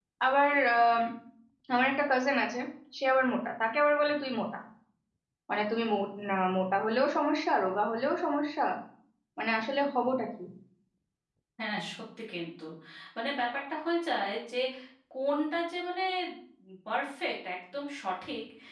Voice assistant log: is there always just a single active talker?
Yes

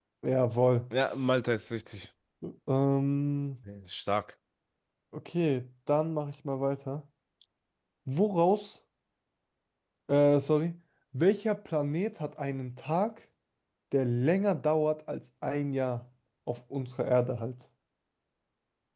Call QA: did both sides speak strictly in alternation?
Yes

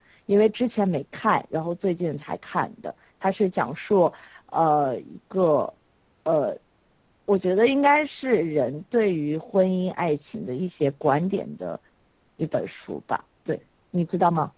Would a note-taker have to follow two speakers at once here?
No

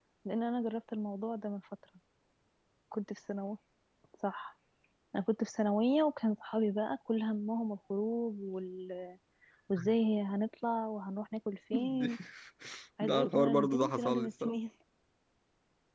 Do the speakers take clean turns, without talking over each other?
No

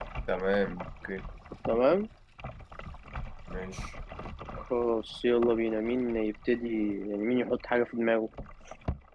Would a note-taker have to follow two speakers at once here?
No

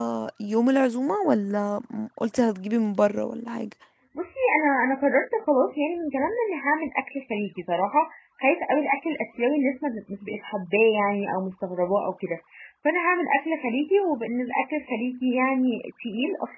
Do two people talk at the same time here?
No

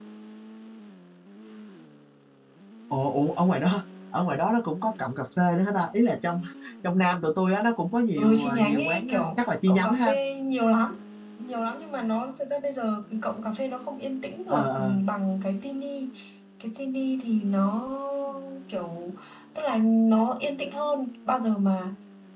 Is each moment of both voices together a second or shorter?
No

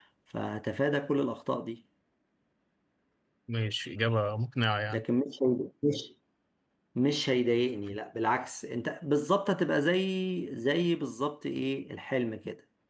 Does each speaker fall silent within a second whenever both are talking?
Yes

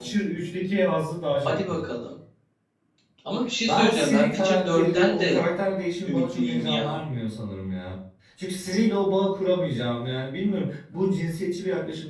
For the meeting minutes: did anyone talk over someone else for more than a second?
Yes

